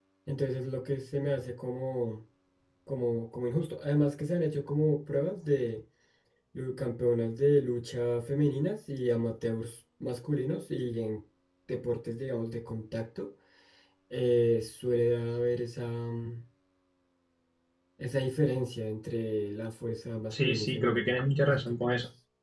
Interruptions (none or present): present